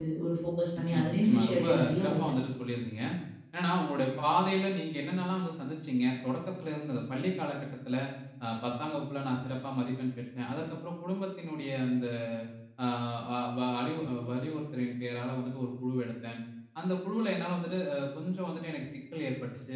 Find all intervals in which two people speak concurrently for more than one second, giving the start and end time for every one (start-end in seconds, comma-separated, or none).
0.8-2.2